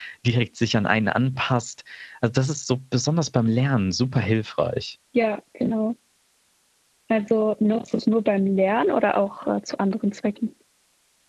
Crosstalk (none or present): none